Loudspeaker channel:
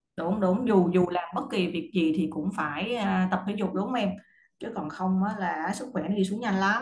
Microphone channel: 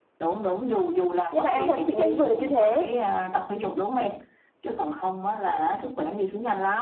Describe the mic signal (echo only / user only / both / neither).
both